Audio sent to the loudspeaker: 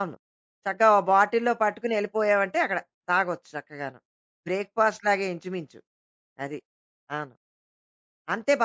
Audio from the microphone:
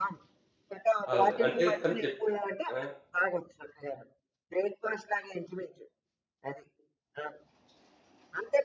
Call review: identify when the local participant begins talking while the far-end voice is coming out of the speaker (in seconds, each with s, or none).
1.1 s